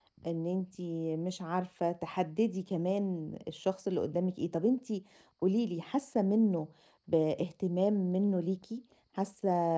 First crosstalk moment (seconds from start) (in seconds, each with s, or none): none